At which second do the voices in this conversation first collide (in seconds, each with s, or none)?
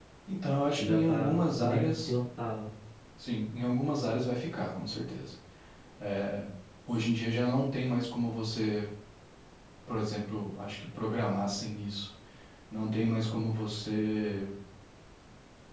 0.8 s